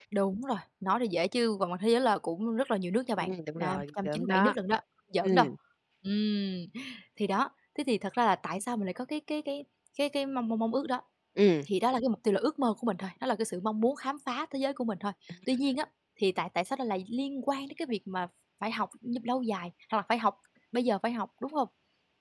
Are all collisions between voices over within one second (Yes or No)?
No